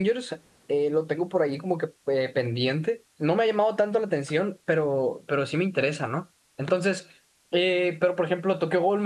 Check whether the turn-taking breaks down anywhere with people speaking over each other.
No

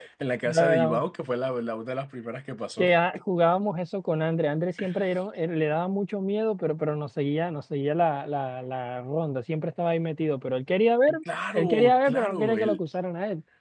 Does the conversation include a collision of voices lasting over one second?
Yes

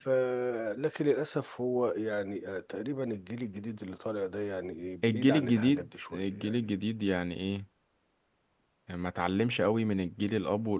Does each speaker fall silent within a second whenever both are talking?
No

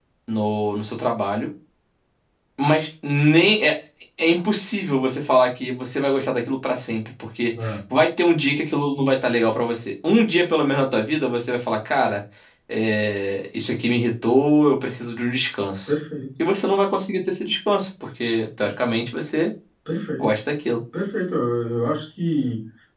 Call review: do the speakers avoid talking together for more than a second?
Yes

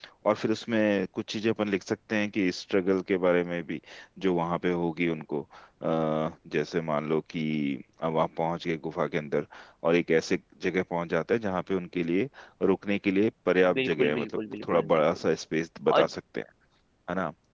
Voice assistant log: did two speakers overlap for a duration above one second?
Yes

